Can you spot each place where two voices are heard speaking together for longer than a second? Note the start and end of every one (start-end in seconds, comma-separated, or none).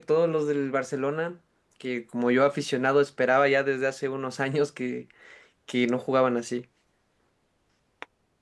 none